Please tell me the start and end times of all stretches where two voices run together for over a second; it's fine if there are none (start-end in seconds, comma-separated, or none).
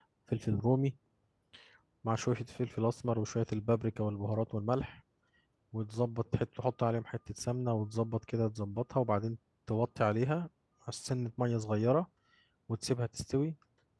none